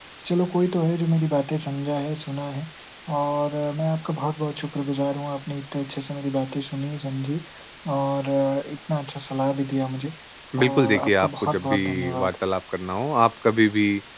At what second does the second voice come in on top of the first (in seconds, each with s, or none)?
10.5 s